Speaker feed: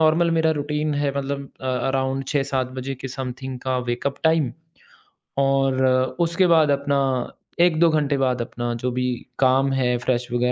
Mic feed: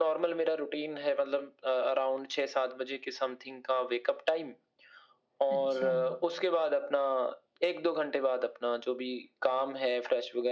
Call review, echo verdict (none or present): present